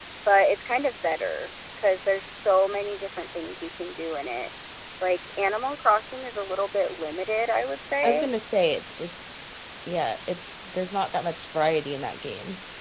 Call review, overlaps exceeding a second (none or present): none